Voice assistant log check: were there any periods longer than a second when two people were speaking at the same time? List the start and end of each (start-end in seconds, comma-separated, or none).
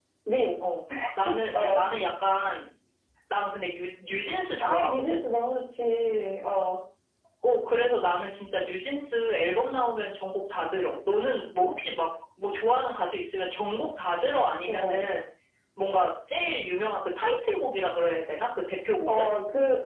none